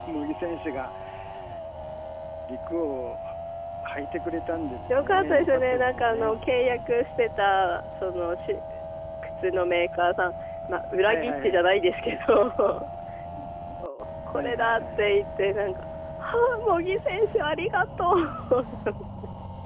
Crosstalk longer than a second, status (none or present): present